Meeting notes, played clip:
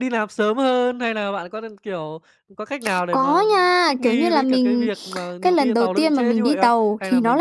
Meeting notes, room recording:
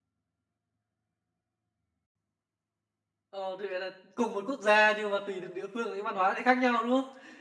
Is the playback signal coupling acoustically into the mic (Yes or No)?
No